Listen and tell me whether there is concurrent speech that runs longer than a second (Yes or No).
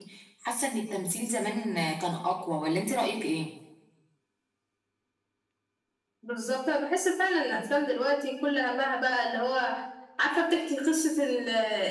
No